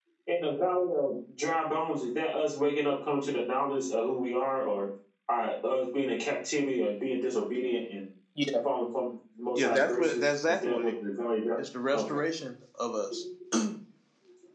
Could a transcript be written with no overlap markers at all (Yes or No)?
No